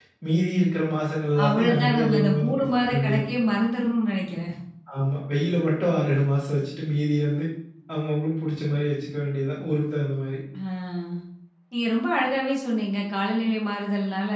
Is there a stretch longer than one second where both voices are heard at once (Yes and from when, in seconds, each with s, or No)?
Yes, from 1.4 s